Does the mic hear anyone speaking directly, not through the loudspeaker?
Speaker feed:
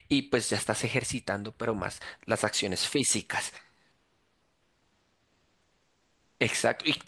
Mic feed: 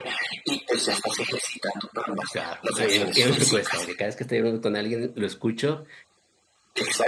Yes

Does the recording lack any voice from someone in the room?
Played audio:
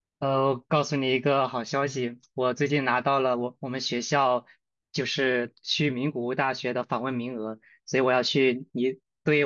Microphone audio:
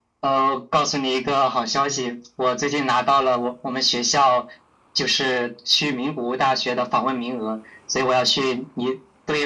Yes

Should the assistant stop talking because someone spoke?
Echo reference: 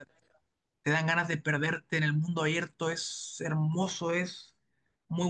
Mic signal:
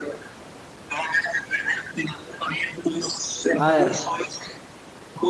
Yes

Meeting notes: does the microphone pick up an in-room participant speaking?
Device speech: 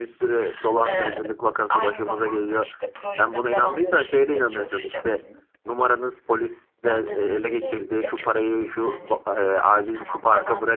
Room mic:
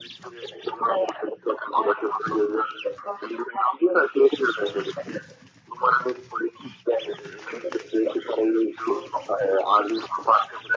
No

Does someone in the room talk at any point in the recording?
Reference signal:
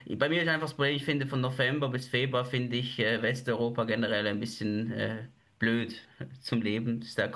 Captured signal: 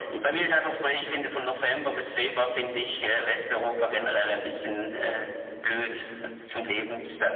No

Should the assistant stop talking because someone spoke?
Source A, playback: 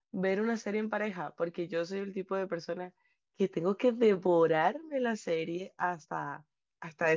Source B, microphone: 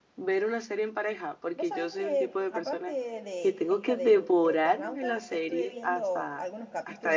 Yes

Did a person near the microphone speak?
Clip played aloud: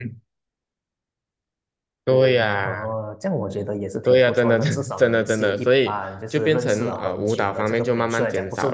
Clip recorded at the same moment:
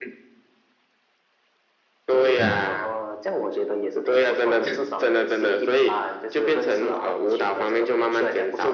Yes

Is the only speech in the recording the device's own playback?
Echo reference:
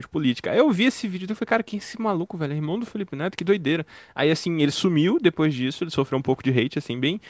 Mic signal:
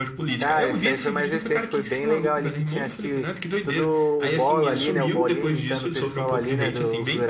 No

